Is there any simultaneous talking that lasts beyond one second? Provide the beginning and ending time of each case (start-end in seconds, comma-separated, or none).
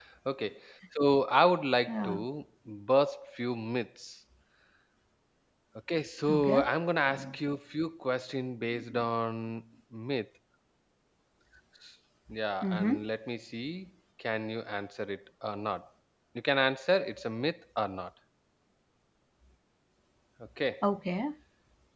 none